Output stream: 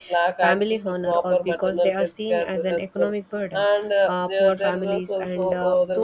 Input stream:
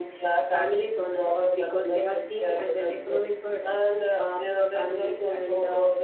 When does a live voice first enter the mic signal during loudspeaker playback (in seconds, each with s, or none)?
none